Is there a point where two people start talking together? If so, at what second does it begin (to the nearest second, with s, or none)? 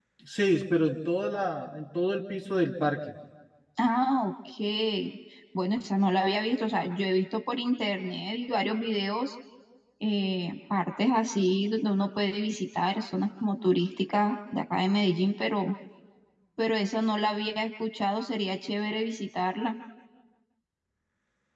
none